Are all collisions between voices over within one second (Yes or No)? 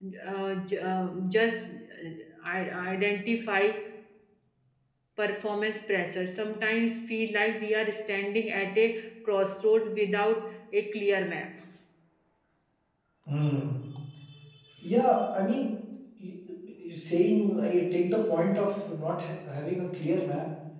Yes